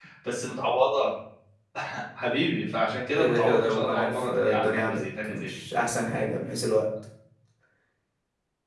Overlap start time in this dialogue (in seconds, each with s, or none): 3.2 s